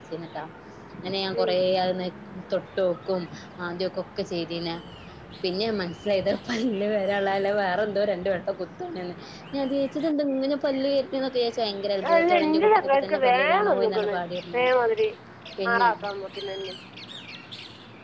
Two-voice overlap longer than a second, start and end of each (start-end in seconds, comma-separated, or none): 12.1-14.1